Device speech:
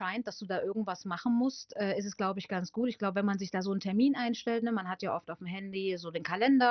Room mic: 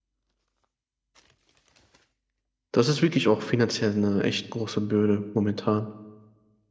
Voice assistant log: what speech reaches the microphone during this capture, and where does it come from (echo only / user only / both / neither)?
user only